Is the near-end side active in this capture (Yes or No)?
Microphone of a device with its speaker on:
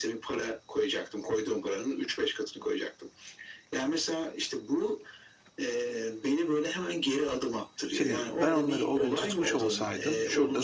Yes